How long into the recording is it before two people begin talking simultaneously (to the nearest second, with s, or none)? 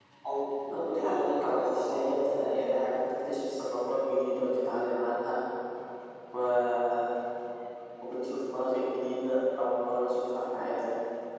1 s